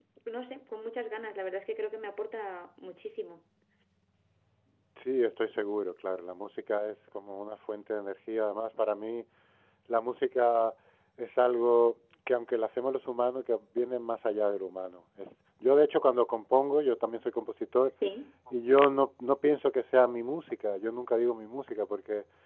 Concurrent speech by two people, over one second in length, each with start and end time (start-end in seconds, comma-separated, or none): none